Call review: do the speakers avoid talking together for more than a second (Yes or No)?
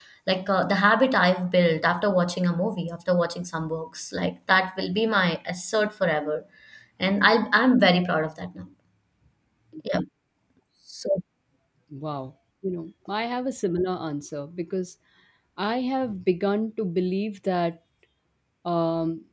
Yes